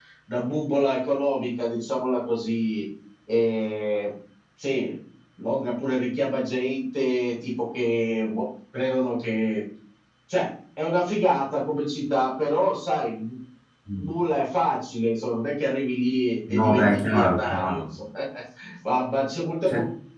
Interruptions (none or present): present